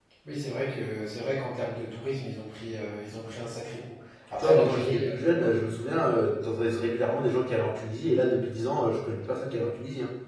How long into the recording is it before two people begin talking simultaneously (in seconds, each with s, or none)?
4.3 s